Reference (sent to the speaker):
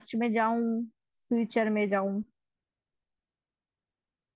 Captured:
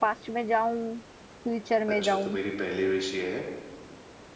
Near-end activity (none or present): present